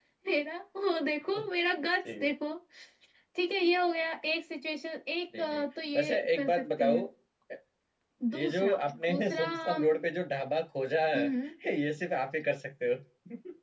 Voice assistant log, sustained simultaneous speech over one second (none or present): present